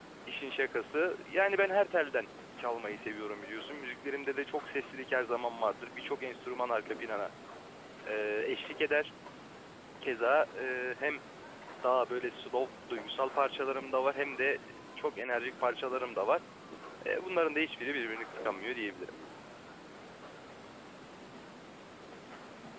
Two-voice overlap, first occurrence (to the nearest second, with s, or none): none